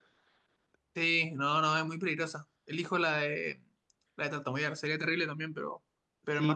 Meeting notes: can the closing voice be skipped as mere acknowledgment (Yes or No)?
No